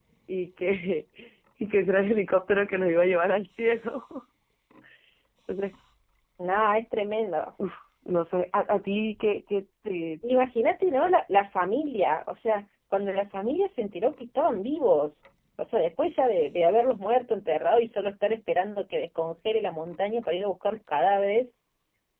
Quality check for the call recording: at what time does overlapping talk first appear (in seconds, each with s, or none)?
none